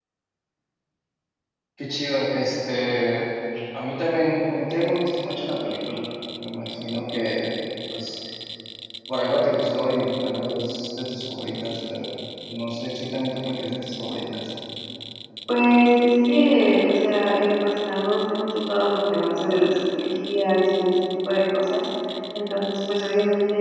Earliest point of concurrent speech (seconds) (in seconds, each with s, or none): none